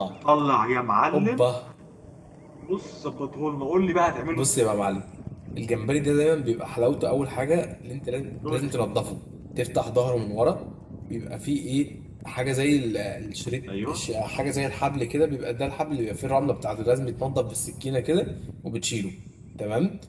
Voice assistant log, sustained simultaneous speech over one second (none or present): none